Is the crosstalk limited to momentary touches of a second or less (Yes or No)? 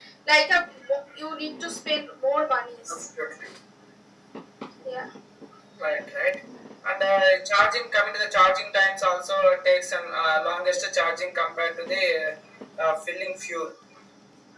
Yes